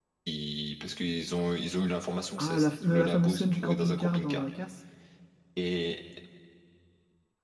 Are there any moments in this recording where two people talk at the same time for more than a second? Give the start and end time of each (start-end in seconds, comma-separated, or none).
2.4-4.4